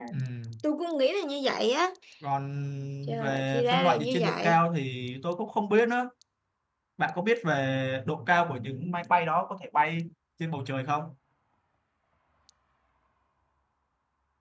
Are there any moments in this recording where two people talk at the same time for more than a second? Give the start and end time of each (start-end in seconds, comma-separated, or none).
3.2-4.6